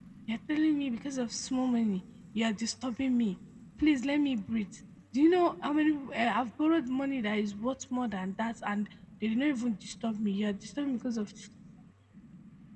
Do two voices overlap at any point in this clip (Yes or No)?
No